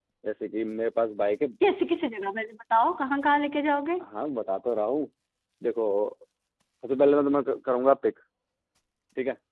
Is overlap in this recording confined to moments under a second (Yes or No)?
Yes